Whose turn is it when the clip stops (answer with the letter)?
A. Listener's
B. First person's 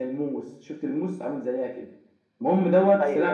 B